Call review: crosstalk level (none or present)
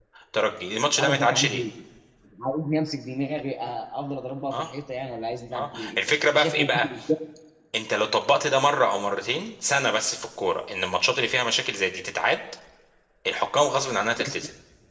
present